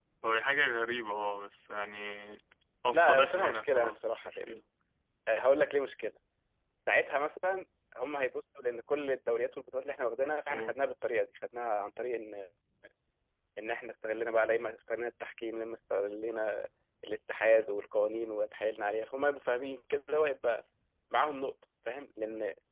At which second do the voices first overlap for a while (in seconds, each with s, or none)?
2.9 s